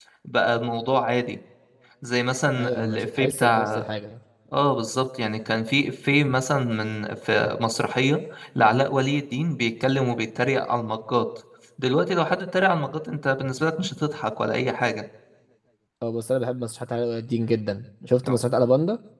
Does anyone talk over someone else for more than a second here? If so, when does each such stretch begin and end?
2.6-3.8

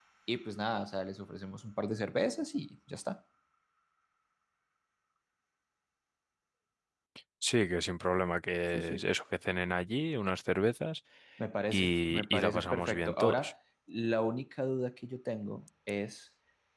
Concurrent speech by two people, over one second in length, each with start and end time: 11.7-13.5

